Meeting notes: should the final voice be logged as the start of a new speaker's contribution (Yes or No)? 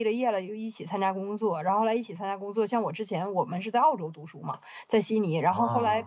No